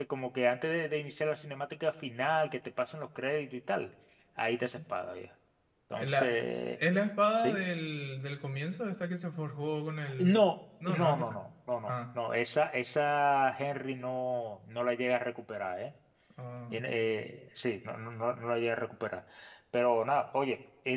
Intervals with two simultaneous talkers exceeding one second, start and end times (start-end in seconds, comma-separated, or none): none